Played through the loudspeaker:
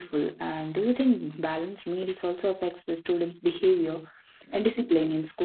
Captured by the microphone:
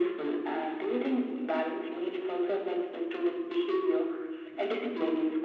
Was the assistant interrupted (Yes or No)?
No